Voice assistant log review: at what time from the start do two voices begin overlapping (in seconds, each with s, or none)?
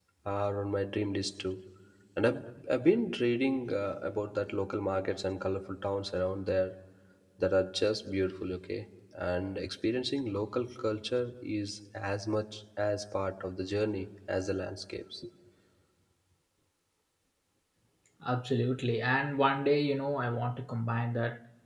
none